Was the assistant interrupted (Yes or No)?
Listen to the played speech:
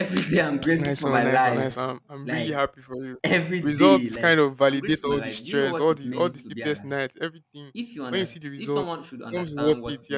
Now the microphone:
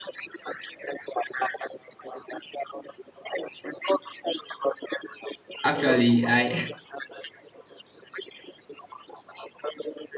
Yes